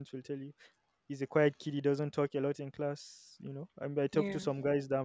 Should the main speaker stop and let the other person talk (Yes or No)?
No